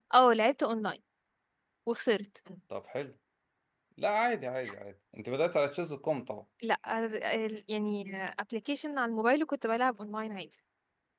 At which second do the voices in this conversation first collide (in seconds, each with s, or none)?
none